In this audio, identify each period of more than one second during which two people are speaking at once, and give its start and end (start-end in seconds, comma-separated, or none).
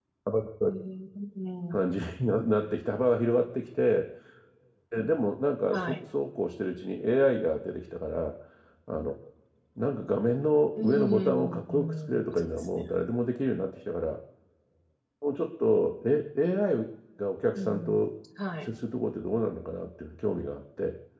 10.8-12.8